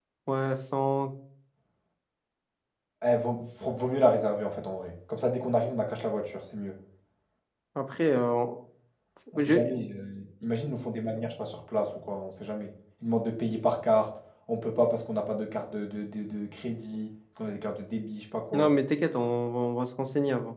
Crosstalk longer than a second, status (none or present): none